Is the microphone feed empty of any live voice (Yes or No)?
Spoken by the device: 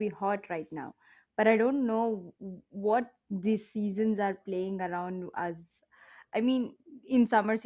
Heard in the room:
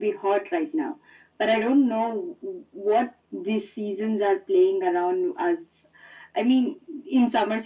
Yes